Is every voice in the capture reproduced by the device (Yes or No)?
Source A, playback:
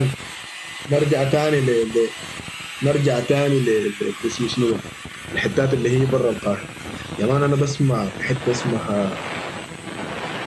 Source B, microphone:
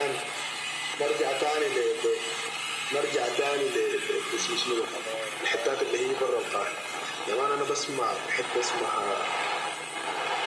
No